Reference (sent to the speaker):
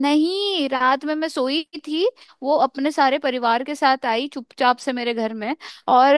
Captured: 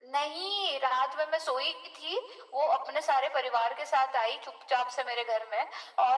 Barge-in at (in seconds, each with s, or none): none